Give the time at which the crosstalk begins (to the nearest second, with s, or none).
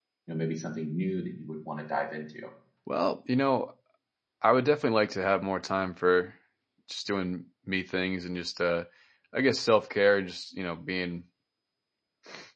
none